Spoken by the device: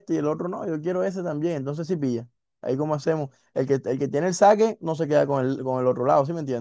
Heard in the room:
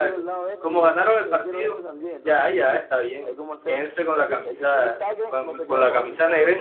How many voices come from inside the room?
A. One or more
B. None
A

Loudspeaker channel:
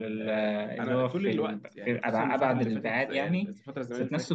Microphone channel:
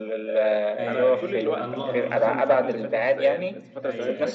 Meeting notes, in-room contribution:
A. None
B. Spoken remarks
B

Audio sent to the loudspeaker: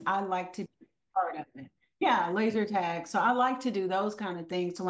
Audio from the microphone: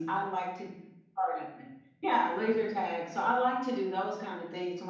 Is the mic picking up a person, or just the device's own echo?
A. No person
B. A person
A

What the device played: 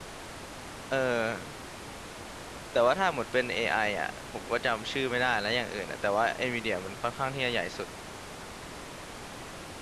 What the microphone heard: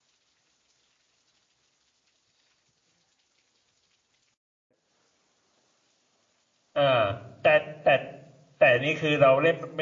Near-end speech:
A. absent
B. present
B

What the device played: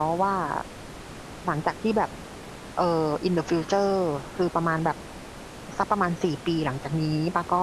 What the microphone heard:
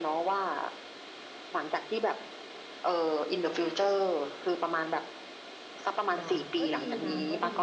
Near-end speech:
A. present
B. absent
A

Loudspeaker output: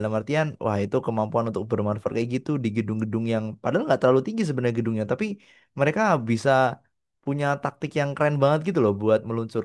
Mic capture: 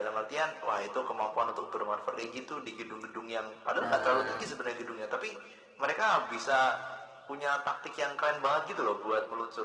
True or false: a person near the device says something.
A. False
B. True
B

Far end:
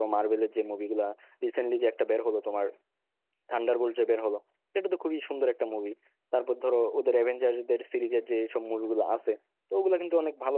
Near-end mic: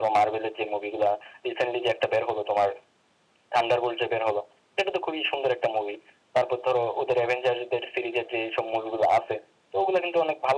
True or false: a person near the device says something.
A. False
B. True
A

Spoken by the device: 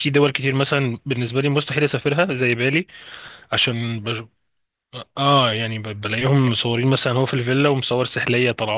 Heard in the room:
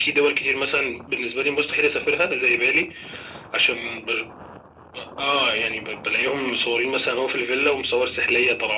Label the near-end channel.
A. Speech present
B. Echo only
B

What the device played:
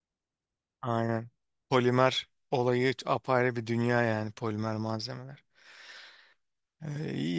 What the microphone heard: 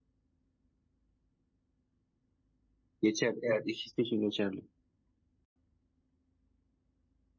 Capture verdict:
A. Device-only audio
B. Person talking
B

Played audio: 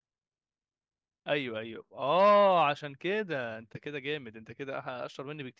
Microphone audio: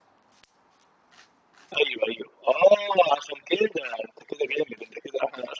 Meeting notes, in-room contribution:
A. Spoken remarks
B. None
B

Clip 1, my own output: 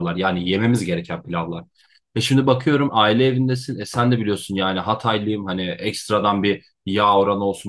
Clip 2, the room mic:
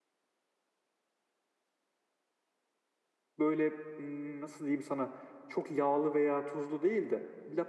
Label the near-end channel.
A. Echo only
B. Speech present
B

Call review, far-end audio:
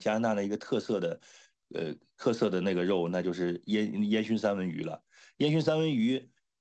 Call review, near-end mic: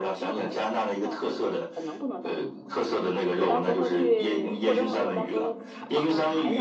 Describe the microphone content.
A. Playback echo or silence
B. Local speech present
B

